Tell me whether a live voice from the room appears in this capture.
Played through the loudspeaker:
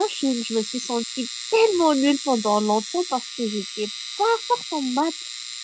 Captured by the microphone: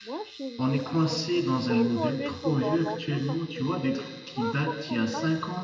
Yes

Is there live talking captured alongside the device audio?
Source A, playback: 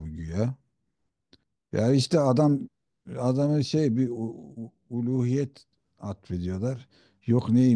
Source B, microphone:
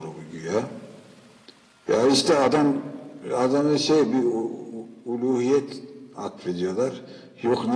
No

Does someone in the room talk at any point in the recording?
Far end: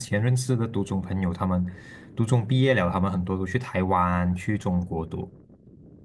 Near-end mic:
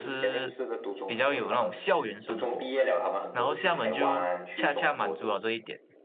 Yes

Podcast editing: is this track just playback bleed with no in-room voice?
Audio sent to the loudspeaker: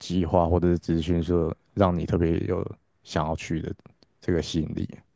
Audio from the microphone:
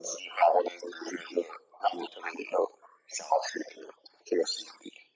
Yes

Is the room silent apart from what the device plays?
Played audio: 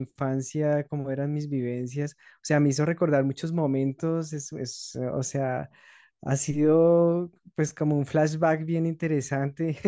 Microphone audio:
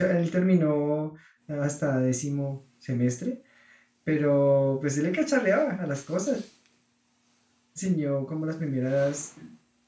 No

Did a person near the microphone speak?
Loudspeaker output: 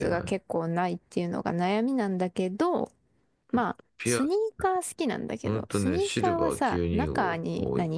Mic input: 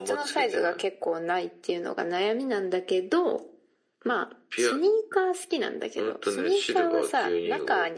No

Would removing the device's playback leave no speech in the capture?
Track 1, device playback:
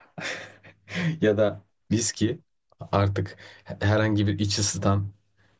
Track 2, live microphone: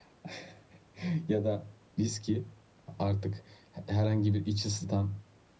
Yes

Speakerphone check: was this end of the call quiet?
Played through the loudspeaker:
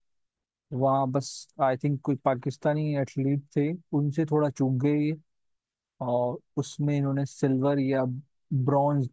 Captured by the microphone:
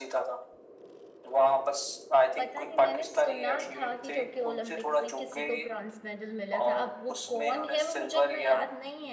No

